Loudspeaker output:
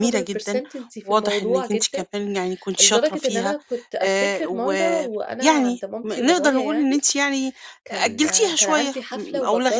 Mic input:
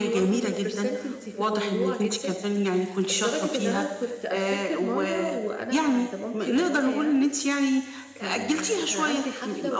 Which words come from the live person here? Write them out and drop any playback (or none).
none